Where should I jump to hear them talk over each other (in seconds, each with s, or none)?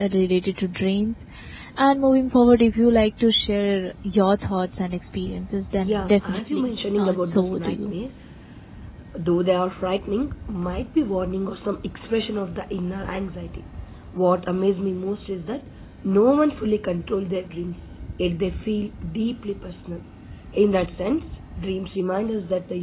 5.8 s